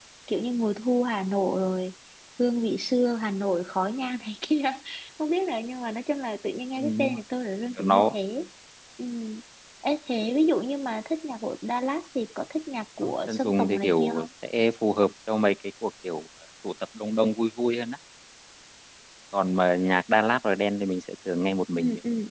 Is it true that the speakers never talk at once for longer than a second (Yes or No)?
No